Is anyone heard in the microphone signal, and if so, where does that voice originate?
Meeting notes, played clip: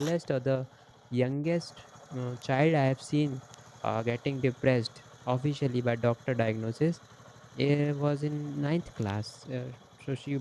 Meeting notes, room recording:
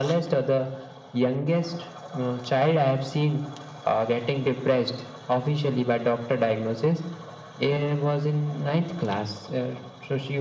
echo only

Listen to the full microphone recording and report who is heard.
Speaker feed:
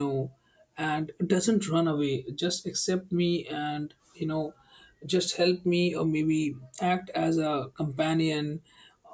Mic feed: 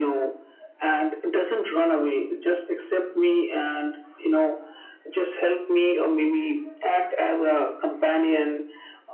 echo only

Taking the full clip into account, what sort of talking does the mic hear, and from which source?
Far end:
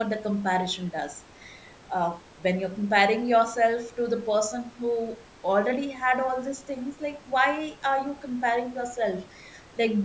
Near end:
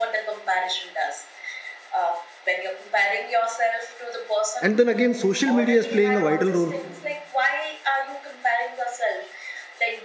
both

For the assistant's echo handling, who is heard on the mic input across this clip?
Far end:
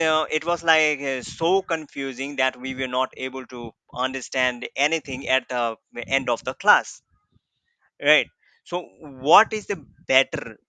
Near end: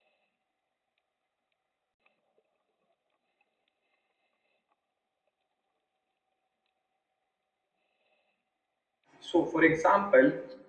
user only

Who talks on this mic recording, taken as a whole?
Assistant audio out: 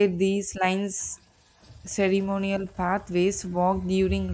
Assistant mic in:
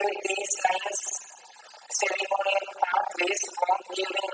echo only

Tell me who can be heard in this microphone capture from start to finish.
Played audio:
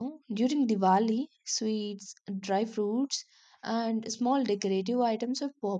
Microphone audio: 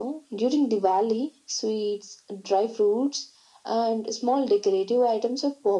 echo only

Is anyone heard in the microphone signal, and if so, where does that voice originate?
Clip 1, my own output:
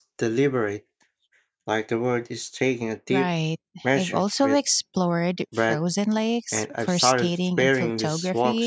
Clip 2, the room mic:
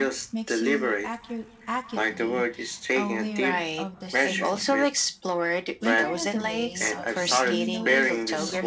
both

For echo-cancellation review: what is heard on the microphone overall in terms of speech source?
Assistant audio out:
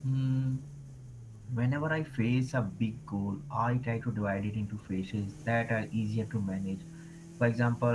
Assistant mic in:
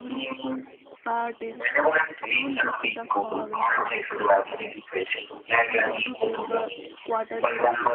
both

